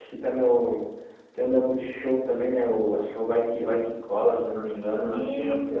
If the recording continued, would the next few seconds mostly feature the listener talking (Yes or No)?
Yes